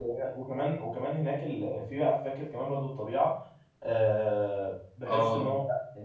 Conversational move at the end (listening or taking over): listening